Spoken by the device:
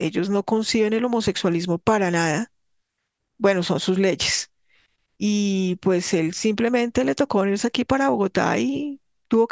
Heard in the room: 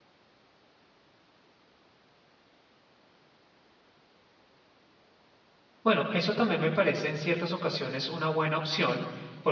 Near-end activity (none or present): present